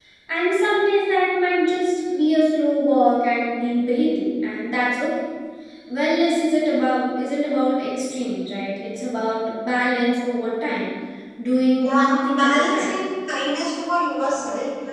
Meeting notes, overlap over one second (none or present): present